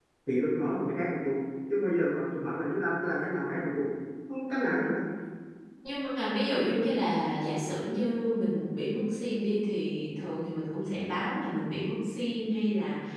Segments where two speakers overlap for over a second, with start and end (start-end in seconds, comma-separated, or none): none